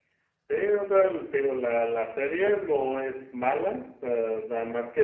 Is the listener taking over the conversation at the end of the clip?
No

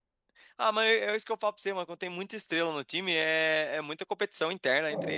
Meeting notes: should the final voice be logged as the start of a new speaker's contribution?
Yes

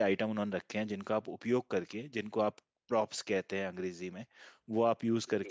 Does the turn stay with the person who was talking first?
Yes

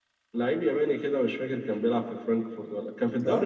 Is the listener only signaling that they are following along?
Yes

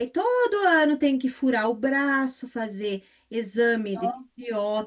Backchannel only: Yes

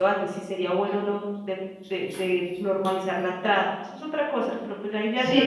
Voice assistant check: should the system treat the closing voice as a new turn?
Yes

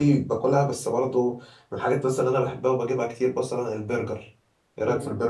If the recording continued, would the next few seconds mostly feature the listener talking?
Yes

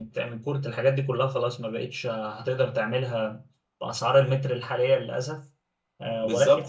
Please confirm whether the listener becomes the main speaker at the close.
Yes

